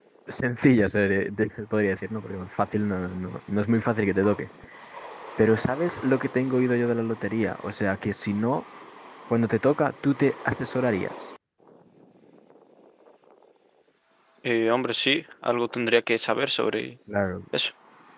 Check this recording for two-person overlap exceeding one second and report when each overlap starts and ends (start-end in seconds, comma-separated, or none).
none